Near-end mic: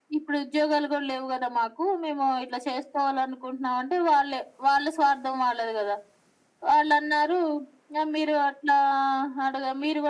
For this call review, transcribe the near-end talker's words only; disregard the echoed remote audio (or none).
none